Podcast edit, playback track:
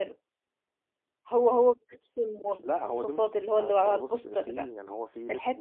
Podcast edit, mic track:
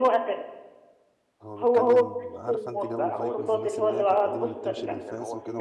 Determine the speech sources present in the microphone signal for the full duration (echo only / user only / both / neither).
both